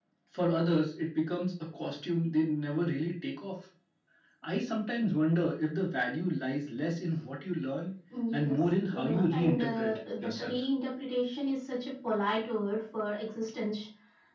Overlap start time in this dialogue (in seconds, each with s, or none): 8.3 s